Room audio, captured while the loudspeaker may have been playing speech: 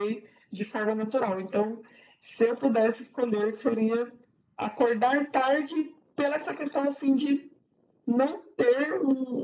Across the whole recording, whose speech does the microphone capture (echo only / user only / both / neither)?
echo only